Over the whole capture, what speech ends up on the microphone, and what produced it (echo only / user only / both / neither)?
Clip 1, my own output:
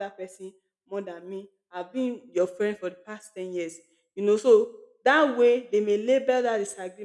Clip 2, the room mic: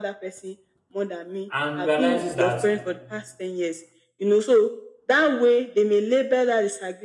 both